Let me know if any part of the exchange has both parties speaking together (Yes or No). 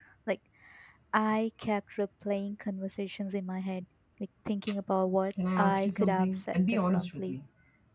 Yes